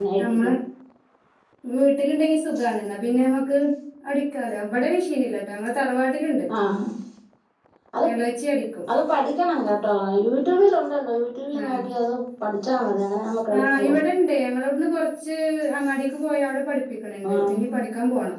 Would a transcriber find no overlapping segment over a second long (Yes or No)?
Yes